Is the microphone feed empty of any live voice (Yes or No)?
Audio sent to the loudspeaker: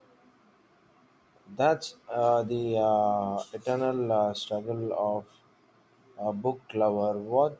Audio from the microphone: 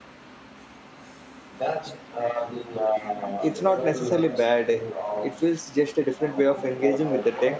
No